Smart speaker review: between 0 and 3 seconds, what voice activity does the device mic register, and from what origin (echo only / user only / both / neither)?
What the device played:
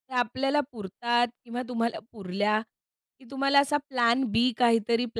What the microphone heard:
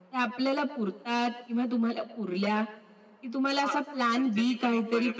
echo only